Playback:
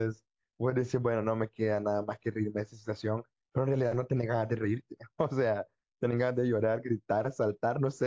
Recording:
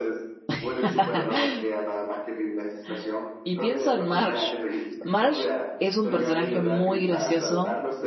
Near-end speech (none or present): present